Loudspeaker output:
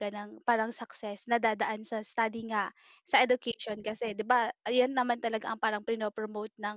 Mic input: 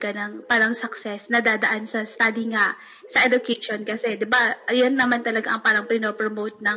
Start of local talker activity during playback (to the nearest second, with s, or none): none